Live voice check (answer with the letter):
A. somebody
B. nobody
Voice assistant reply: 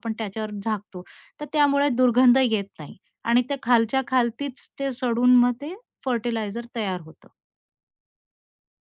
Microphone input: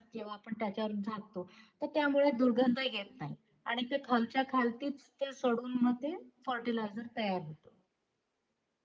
B